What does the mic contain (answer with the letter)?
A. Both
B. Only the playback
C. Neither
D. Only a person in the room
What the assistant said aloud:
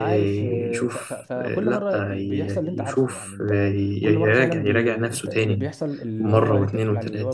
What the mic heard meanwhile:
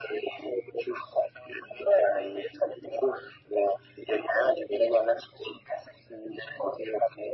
B